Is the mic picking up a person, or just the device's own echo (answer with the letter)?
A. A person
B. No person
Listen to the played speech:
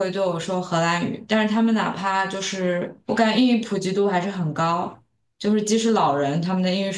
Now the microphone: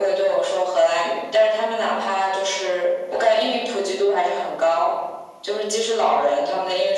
B